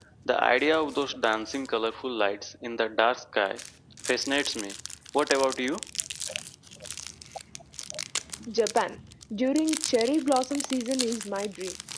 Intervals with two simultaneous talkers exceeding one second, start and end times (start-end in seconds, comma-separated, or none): none